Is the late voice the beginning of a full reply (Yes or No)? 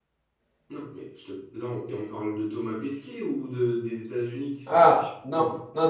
Yes